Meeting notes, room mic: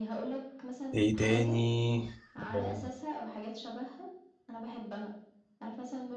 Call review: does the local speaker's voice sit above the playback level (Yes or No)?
Yes